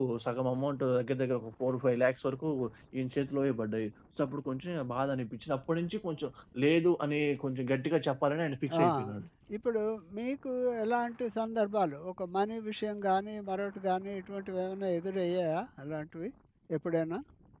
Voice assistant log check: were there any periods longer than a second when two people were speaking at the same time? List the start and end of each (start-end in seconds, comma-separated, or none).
none